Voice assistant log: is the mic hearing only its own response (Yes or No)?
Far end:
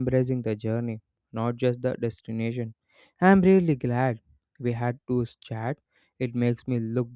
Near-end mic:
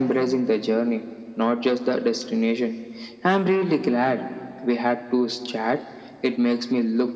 Yes